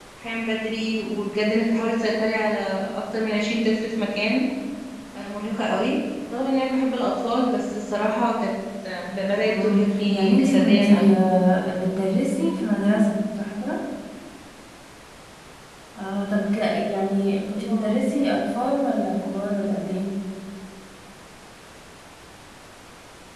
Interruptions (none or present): present